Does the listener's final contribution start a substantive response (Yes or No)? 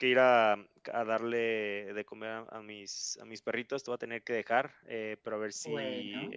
No